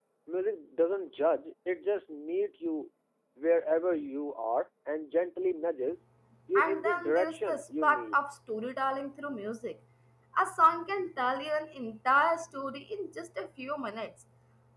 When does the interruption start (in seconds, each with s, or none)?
6.6 s